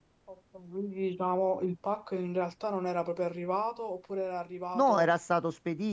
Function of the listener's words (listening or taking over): taking over